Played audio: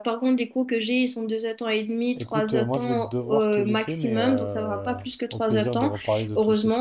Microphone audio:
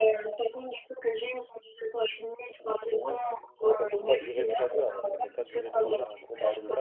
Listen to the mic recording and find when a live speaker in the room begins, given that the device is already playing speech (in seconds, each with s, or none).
3.8 s